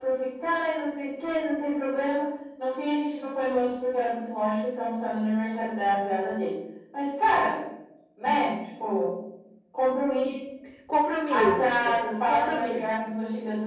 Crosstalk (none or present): present